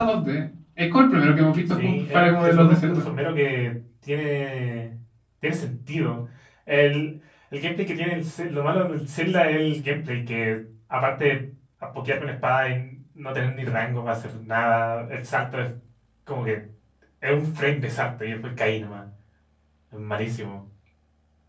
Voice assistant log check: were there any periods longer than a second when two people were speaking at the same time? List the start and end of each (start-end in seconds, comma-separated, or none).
1.8-3.0